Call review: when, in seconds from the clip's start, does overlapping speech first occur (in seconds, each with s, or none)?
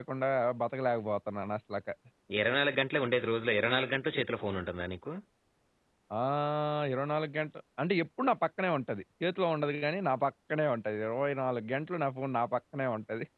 none